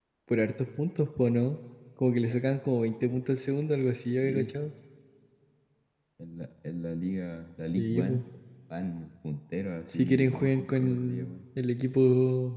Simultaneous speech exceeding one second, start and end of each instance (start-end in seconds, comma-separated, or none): 9.9-11.3